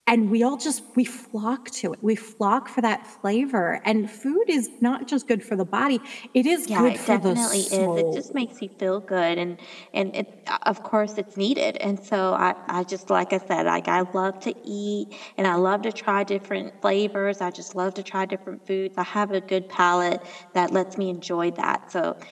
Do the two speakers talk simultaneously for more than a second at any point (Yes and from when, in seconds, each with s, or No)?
Yes, from 6.7 s